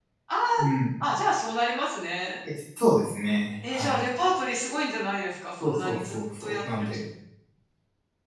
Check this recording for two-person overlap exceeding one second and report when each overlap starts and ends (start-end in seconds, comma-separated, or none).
5.6-6.9